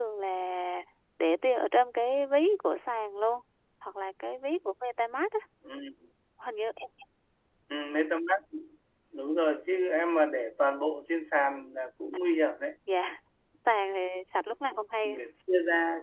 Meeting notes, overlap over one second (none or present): none